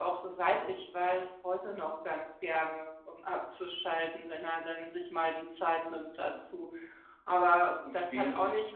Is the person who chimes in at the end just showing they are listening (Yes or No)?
Yes